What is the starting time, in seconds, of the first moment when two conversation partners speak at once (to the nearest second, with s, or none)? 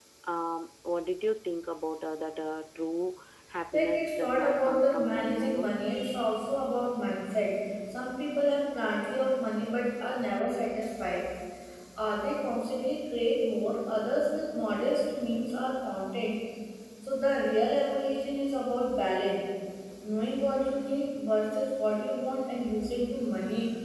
4 s